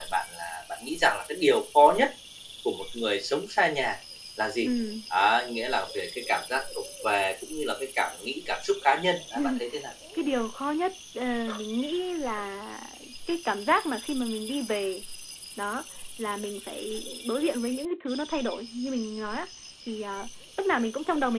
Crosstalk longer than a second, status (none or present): none